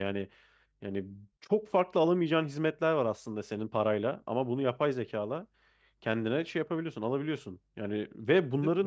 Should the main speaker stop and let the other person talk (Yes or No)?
No